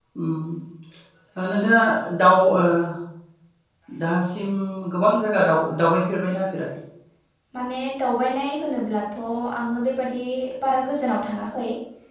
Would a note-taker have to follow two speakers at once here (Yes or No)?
No